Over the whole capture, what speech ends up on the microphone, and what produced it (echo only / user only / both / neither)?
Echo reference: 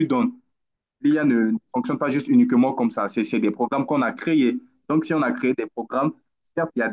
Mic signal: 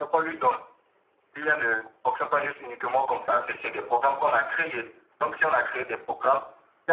echo only